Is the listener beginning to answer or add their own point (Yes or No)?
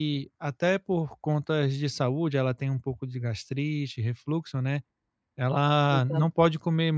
No